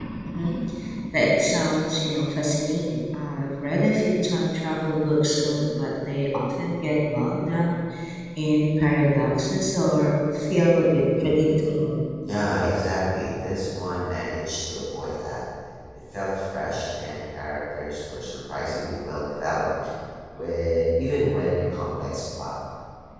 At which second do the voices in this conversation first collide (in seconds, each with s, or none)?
none